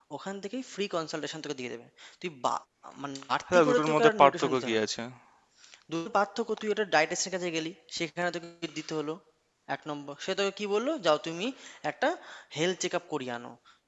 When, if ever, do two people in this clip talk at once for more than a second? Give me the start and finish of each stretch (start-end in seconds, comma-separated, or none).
3.5-4.8